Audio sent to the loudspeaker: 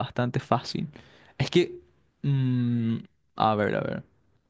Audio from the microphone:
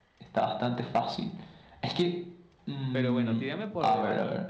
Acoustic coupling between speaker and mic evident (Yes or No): Yes